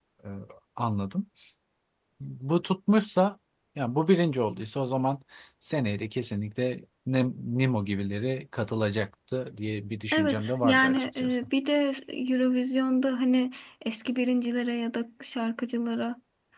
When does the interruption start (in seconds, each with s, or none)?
10.1 s